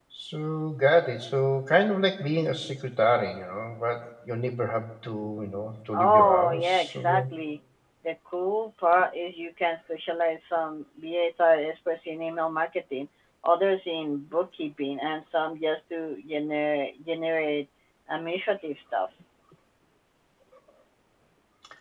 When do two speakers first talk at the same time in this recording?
6 s

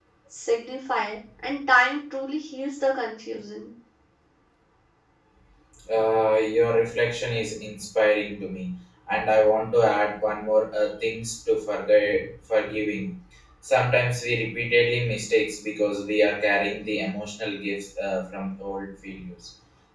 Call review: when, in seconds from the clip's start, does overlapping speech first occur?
none

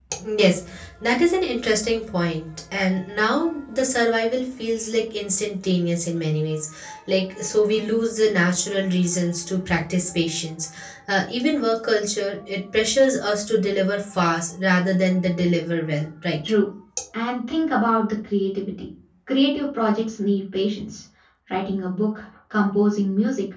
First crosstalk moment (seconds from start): none

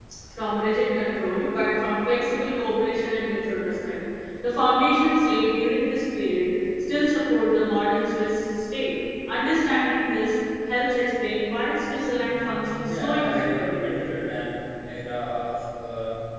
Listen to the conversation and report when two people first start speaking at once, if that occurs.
13 s

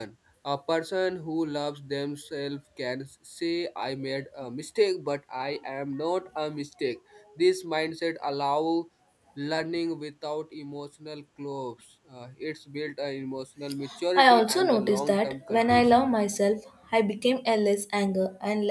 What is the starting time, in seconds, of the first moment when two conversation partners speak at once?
14 s

